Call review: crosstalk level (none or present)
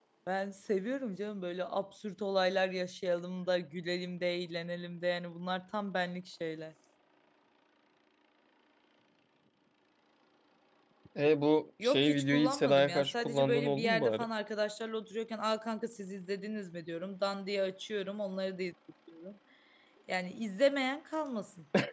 present